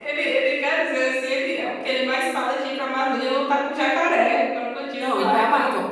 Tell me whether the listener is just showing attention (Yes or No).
No